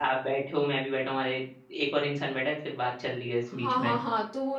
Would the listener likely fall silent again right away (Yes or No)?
No